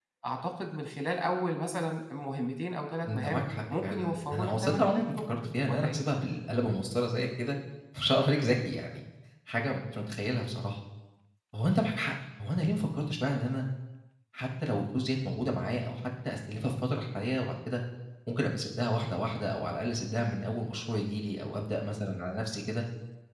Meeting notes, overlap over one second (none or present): present